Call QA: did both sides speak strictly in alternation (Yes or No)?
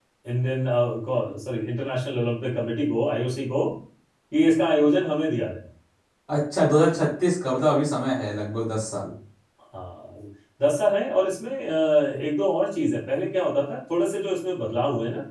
Yes